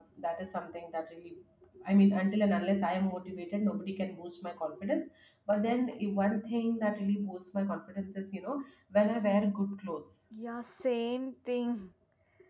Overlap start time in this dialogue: none

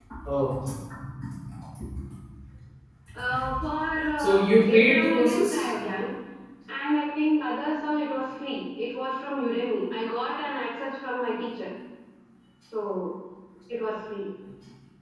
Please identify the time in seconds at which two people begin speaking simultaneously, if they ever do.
4.2 s

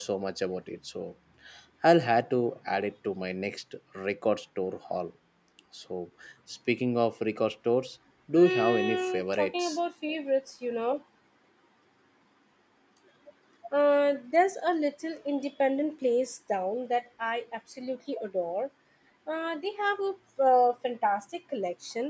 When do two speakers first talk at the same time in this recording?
8.3 s

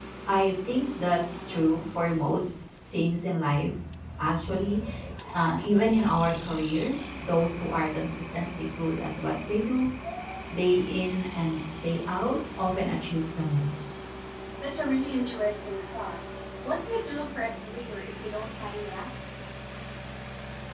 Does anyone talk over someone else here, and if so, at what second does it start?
none

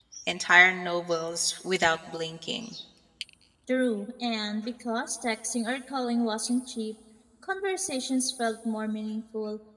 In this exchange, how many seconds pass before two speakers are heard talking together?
none

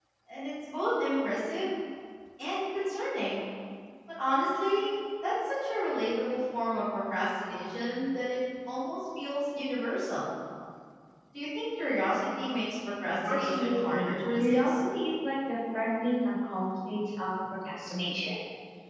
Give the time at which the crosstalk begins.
13.3 s

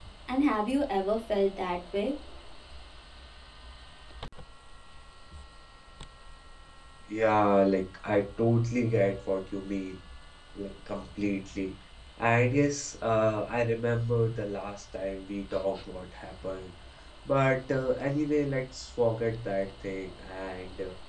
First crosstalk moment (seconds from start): none

